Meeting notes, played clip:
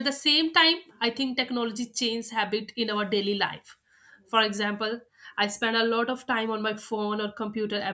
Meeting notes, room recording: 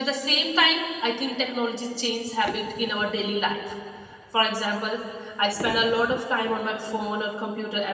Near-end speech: none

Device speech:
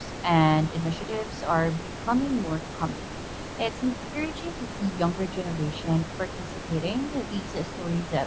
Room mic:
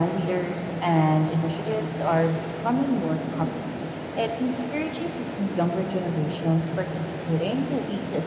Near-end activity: none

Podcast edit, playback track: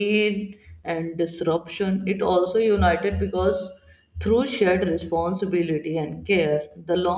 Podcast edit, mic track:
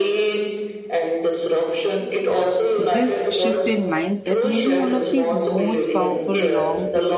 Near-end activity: present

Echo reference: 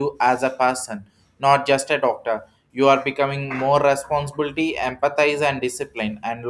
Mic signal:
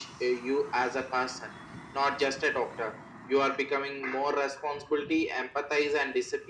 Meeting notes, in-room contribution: none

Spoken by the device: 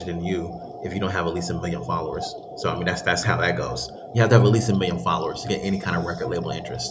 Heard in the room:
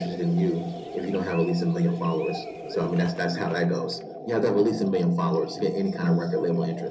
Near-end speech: none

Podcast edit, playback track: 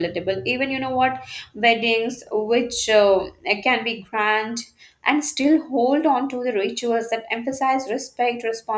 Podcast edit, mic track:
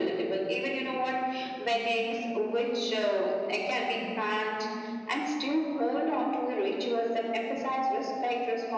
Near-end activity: none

